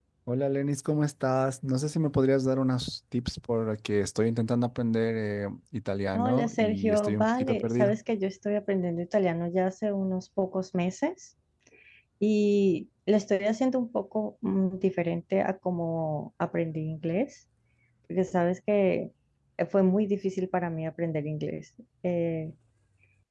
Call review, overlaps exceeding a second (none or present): present